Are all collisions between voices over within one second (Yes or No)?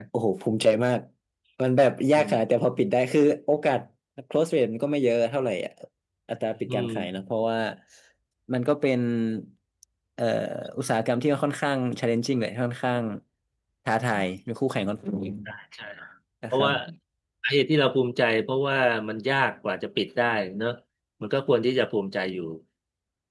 Yes